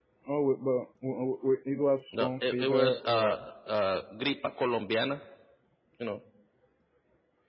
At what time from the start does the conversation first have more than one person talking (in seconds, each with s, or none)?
2.1 s